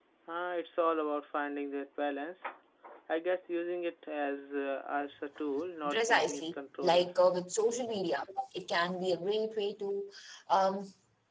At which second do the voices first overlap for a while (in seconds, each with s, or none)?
5.8 s